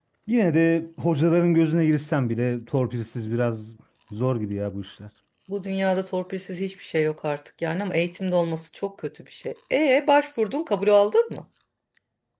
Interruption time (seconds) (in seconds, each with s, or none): none